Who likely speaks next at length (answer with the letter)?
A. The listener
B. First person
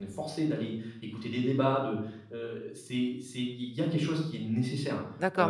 A